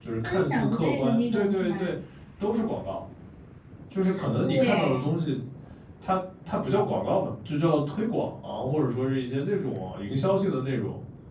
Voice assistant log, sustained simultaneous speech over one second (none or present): present